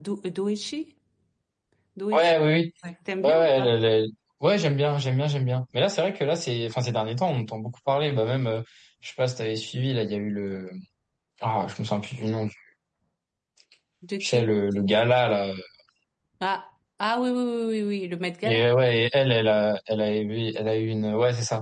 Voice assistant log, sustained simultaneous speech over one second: none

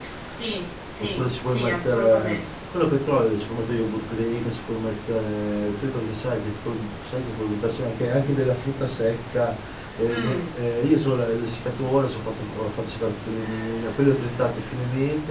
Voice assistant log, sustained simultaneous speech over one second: present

